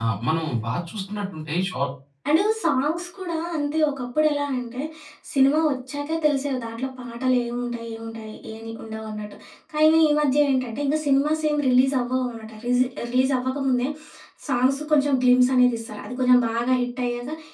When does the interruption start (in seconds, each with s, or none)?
none